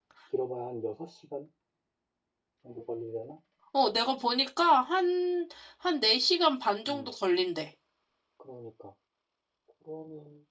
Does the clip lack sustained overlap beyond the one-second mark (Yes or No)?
Yes